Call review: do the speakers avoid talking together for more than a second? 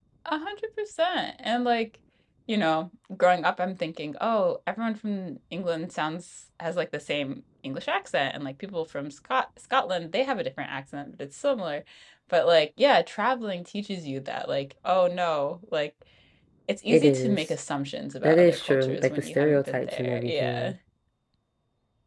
No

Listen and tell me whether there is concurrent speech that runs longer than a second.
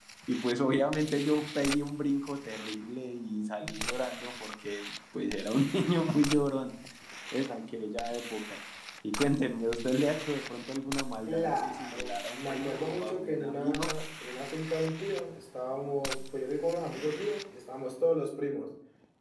Yes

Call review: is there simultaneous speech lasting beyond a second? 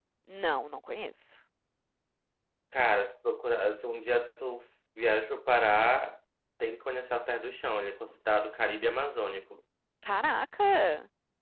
No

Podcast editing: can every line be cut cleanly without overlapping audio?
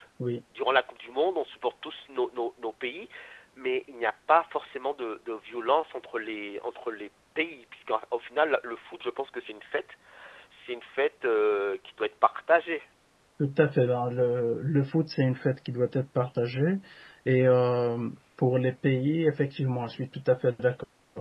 Yes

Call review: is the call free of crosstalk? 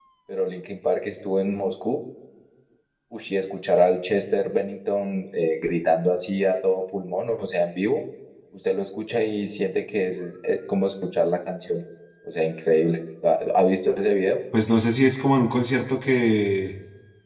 Yes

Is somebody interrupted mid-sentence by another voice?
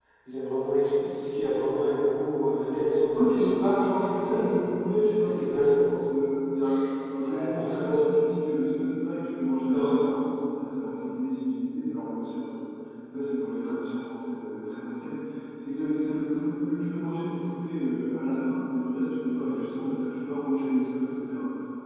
Yes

